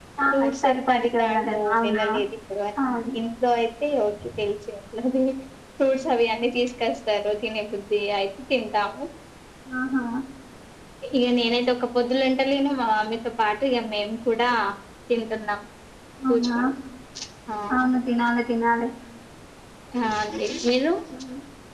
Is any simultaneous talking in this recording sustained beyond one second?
Yes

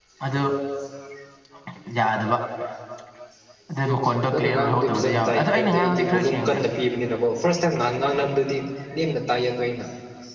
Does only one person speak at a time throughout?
No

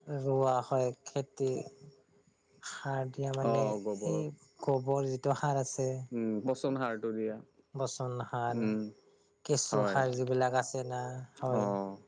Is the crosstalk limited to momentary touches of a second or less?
Yes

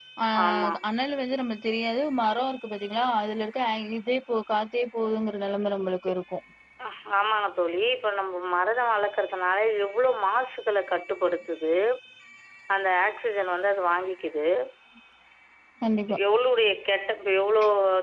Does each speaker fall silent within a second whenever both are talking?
Yes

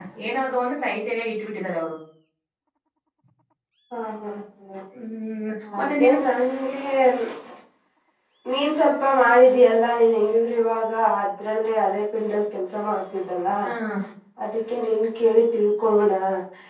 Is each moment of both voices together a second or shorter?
Yes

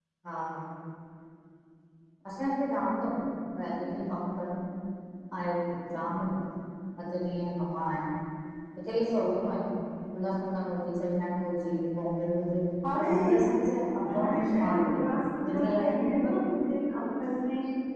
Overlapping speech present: Yes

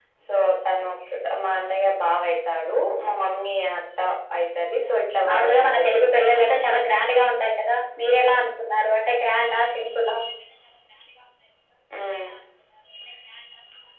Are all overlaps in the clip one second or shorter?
No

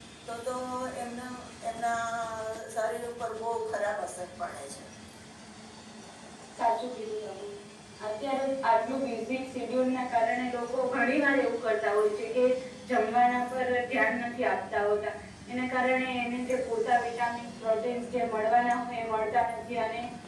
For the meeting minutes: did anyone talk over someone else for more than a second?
No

